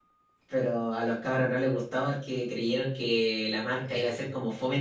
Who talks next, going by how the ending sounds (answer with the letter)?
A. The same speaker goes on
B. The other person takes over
A